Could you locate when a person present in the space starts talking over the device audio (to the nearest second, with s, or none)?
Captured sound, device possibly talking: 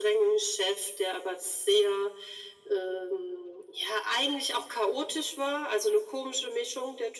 none